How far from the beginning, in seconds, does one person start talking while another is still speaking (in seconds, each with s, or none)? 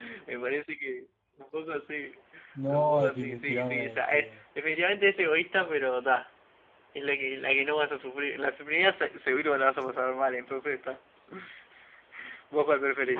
2.7 s